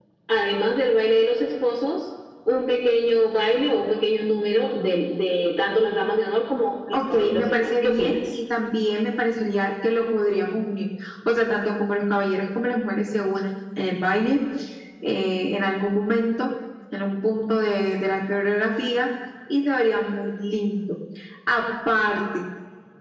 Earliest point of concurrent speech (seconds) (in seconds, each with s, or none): 6.9 s